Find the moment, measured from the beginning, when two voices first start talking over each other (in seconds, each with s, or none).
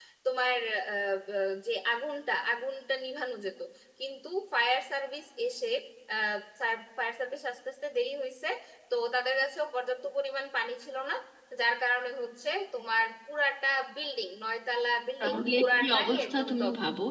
15.2 s